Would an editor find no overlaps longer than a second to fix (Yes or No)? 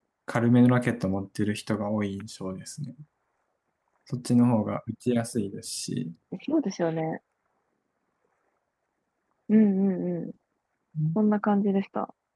Yes